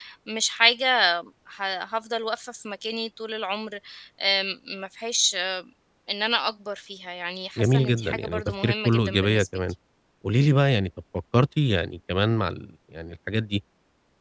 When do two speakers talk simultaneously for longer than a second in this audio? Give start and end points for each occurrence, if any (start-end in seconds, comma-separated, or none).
7.6-9.5